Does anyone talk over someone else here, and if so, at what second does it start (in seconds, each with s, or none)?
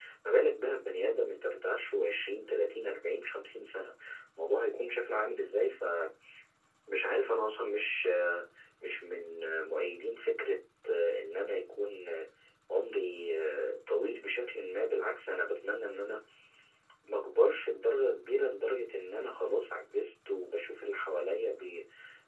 none